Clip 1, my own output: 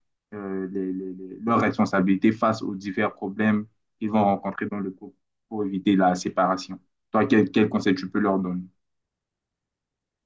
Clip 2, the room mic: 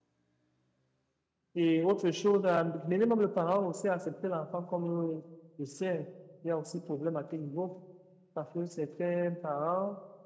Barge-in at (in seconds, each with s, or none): 1.5 s